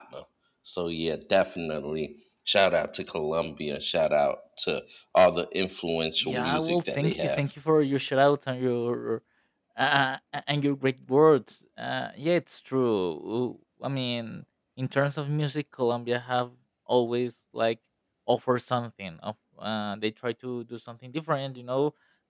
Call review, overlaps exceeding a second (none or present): present